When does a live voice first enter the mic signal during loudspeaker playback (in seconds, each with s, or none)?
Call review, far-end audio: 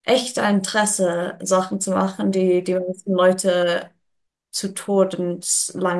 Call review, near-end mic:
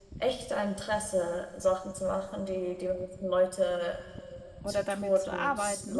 4.6 s